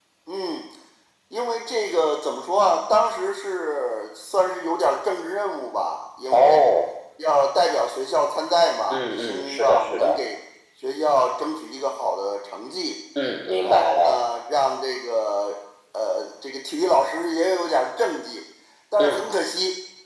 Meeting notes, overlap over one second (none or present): present